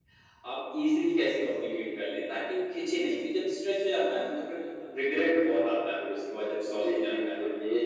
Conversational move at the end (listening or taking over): taking over